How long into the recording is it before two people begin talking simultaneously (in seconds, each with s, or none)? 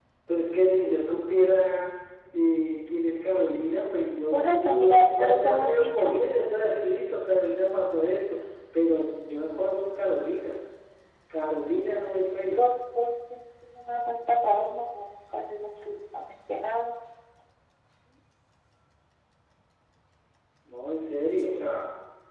4.3 s